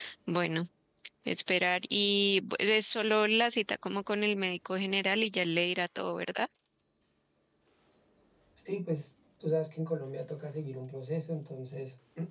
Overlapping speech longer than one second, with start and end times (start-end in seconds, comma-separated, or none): none